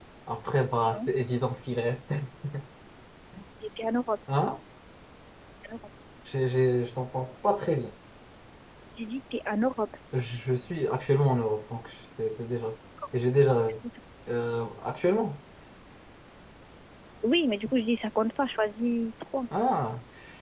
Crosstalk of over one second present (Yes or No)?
No